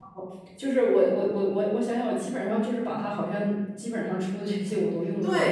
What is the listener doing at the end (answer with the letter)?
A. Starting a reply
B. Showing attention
A